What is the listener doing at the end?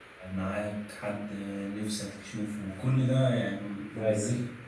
listening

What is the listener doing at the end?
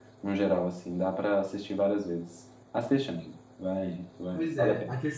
taking over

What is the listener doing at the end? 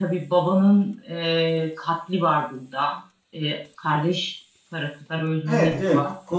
taking over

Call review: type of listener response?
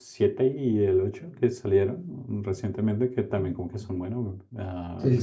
taking over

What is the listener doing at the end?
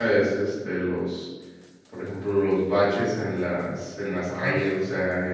listening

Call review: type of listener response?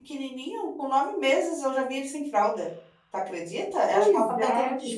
listening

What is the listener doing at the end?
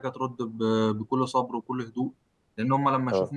listening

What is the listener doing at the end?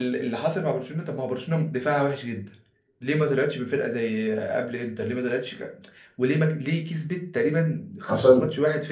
listening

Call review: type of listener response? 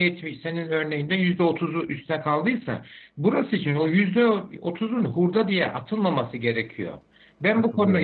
listening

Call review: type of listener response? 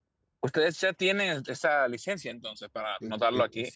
taking over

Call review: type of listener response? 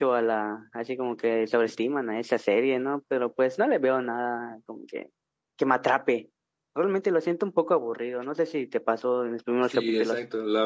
taking over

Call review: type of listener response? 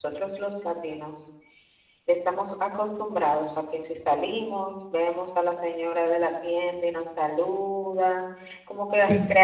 listening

